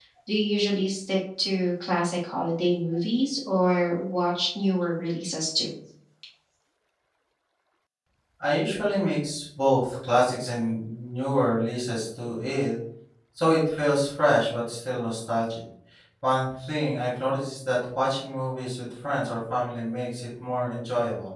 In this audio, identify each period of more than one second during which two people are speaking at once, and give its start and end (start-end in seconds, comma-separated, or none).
none